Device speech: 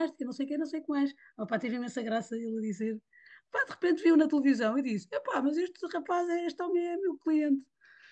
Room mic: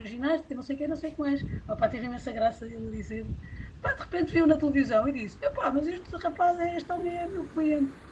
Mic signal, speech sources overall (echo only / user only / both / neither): echo only